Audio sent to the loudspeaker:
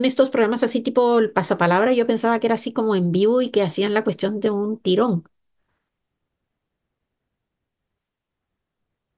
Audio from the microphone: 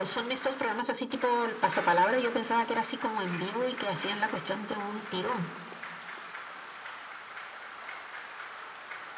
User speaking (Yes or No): No